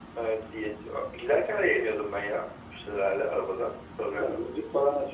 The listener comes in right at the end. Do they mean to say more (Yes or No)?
Yes